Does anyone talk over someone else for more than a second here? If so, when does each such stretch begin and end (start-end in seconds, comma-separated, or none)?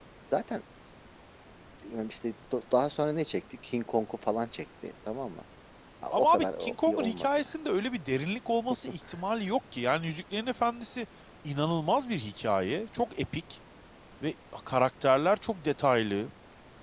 6.1-7.6